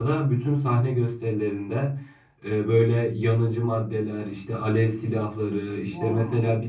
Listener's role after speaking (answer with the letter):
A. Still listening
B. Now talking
A